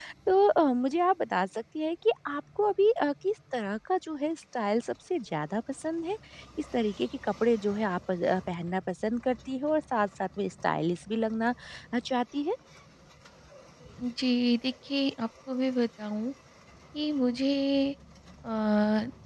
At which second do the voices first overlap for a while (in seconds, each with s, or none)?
none